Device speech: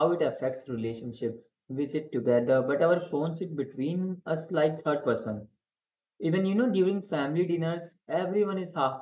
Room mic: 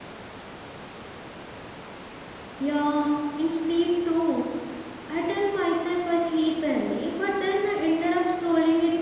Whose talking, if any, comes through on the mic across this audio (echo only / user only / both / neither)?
user only